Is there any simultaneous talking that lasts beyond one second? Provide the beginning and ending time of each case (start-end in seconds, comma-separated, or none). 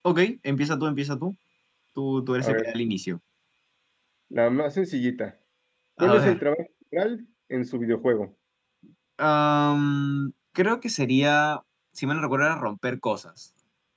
none